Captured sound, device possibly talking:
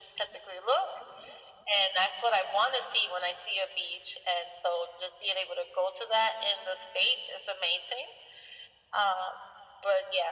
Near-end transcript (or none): none